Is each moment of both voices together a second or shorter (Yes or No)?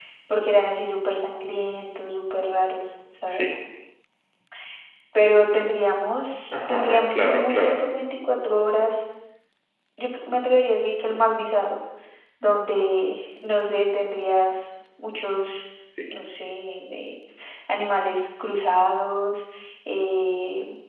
No